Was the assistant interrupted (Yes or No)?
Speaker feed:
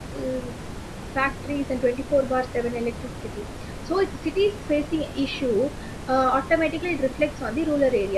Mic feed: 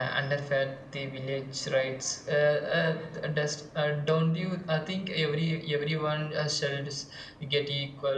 Yes